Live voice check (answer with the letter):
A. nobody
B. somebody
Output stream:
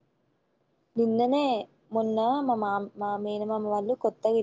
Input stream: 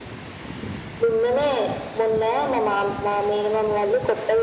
A